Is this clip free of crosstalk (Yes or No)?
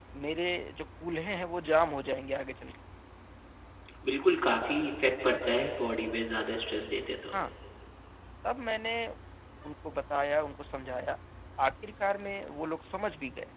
Yes